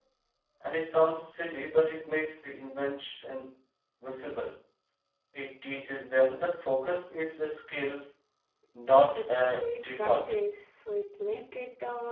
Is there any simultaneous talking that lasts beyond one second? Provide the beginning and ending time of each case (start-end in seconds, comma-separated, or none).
9.2-10.3